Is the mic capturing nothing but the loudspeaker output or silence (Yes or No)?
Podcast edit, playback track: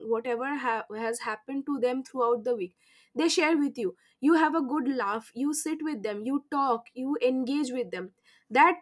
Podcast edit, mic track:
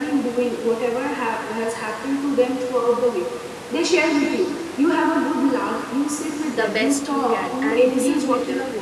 No